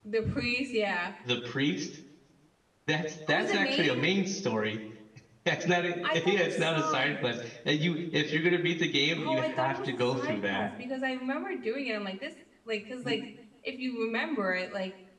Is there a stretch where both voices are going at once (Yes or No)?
Yes